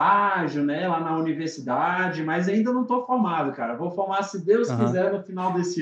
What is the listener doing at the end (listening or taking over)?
listening